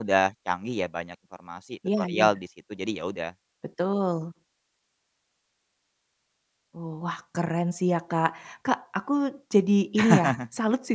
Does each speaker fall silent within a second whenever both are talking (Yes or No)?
Yes